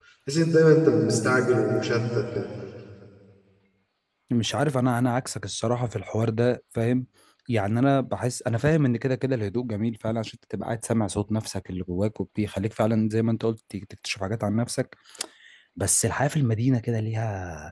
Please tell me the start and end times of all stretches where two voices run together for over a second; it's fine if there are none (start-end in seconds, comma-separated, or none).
none